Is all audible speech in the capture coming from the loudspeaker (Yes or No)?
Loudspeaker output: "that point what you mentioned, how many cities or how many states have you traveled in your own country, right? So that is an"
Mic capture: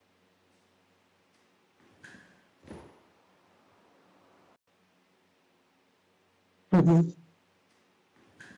No